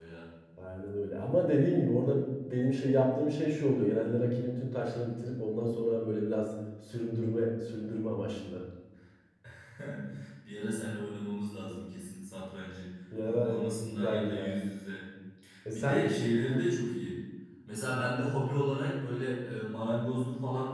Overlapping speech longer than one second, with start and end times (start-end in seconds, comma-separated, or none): 13.2-14.5